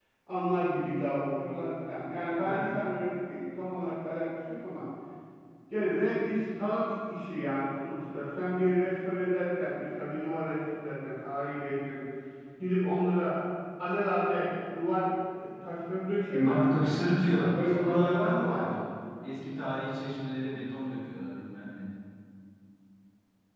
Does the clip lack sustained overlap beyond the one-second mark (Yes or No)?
No